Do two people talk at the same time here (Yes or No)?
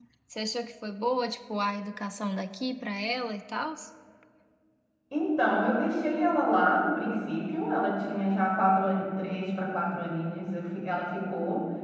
No